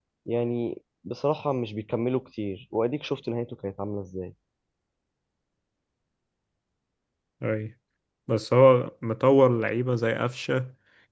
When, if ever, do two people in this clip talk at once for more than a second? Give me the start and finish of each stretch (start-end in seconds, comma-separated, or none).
none